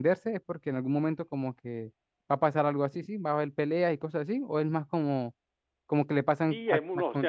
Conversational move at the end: taking over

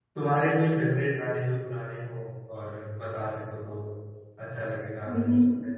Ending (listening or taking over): taking over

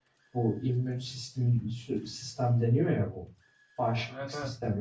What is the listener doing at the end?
listening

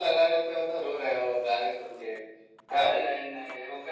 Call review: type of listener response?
taking over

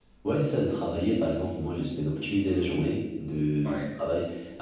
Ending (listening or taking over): listening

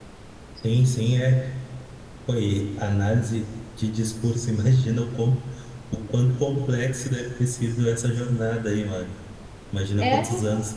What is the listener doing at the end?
listening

